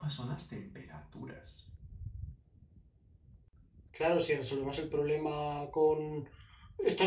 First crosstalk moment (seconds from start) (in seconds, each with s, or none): none